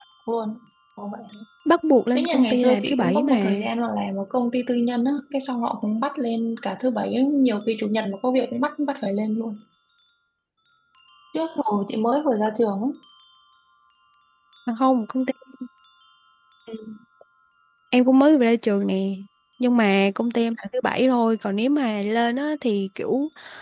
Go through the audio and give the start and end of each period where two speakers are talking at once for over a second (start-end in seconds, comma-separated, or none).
2.1-3.6